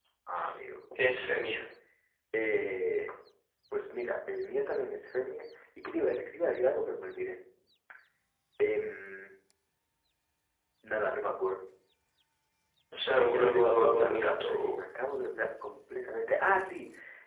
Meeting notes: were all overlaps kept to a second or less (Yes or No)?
No